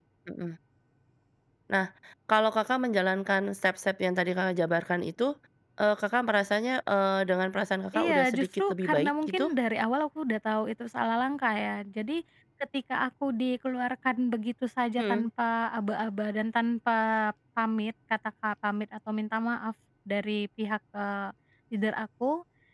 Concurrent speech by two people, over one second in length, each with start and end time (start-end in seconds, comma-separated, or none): 7.9-9.5